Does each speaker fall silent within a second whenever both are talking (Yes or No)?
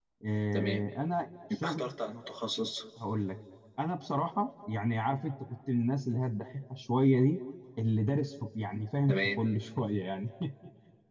Yes